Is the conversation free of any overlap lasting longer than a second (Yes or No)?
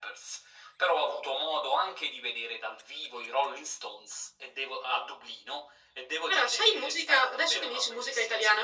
No